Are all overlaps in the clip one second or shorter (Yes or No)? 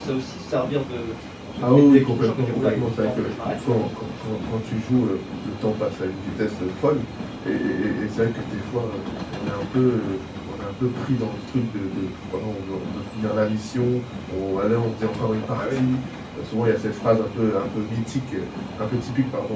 No